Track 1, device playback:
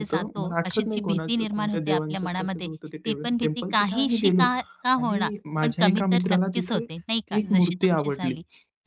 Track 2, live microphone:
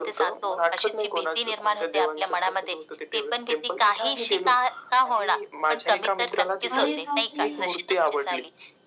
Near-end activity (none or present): present